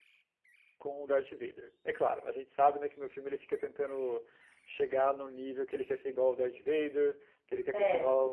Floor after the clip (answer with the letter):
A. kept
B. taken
A